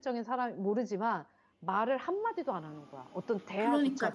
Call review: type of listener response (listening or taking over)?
taking over